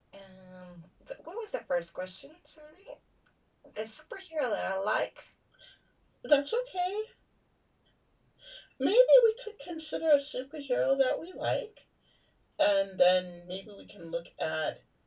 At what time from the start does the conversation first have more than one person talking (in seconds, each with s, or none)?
none